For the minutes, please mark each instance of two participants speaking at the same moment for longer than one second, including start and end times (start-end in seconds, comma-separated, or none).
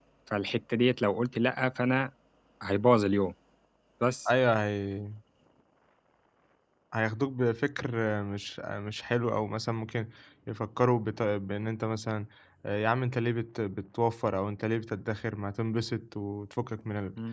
none